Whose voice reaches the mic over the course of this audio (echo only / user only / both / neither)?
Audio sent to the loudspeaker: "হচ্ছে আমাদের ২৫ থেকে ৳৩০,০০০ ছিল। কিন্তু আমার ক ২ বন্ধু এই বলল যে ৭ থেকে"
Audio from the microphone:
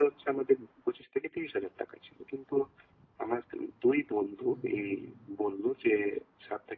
both